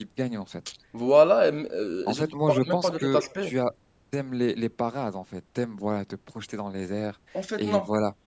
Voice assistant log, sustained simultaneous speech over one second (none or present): present